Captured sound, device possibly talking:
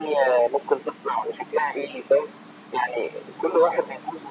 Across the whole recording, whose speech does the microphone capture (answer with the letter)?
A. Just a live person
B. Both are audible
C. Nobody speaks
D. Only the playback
D